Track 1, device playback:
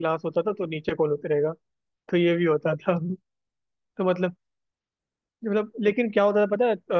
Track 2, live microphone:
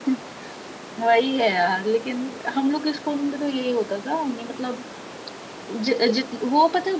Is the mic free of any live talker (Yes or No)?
No